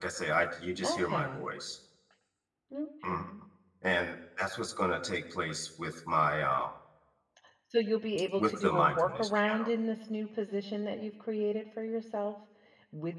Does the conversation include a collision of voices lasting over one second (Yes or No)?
Yes